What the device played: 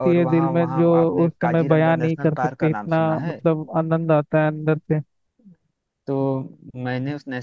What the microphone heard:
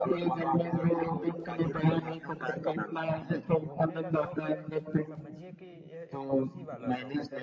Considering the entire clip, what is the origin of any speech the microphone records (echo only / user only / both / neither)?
both